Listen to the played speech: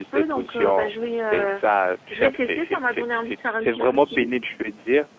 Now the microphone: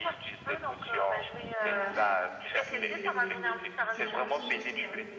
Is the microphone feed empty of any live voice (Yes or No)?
No